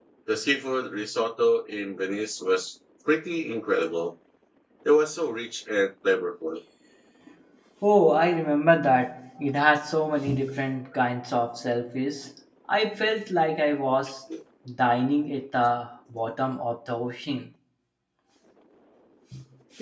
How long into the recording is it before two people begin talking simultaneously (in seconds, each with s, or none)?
none